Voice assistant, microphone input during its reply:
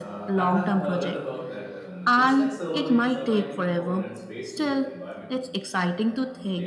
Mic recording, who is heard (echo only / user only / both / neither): both